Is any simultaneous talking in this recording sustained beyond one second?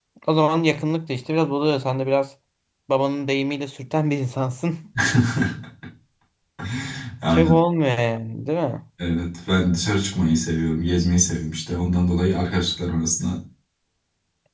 No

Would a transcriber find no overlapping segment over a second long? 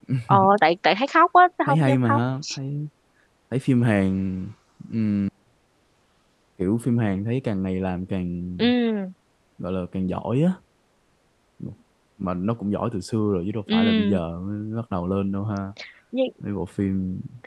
Yes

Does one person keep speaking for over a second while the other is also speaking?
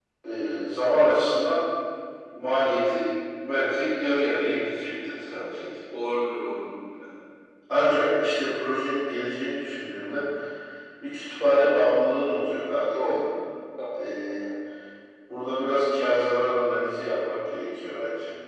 No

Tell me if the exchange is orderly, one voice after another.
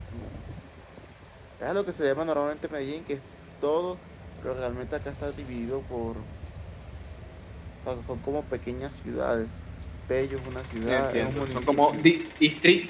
No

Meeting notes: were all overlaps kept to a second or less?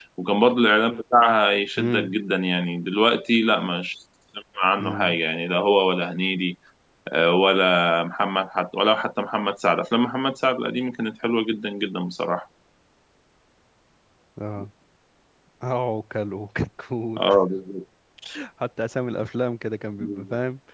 Yes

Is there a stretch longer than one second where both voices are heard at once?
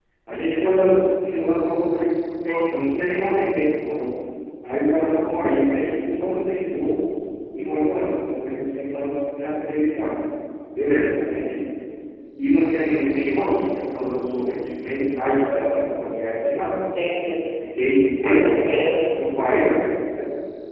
No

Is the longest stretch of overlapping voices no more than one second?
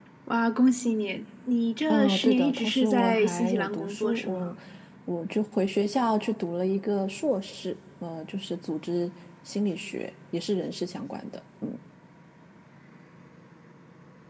No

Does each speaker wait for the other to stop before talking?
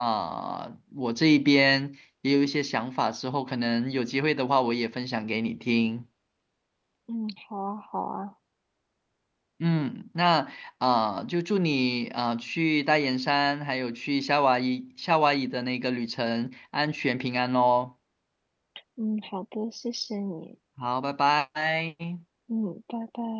Yes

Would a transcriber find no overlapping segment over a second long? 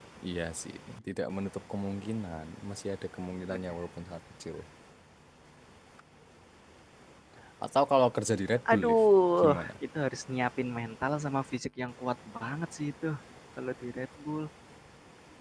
Yes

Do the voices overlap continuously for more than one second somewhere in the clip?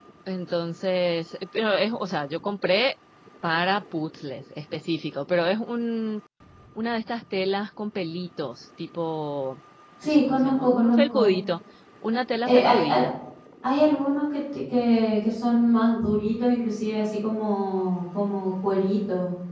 Yes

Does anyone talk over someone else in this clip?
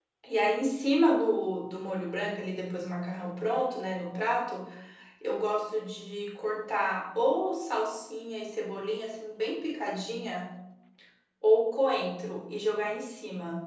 No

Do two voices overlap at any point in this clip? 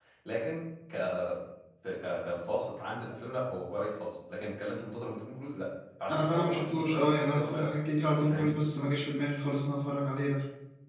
Yes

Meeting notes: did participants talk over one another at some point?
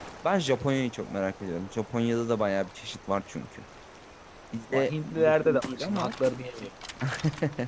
Yes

